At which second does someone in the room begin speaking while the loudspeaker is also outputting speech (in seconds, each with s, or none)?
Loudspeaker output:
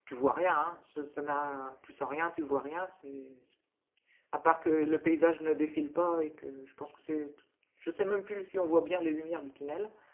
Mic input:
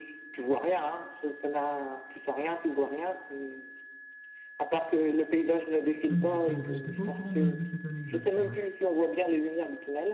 6.1 s